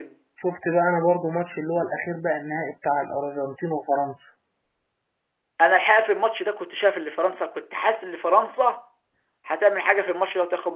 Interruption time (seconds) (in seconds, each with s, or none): none